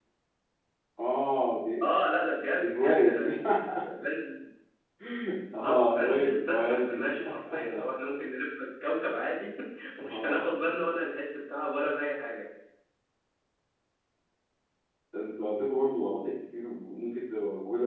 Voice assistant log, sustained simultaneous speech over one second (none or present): present